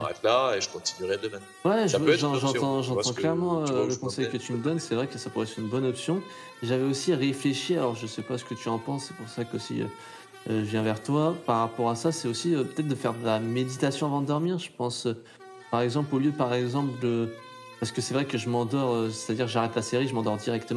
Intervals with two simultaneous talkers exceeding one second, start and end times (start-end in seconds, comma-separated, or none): 1.9-4.8